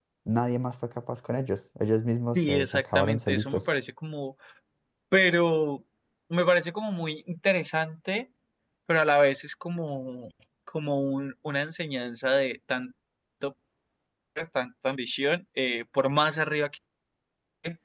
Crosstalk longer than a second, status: present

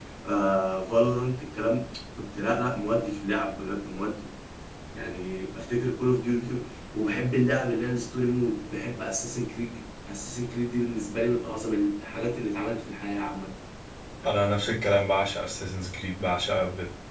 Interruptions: none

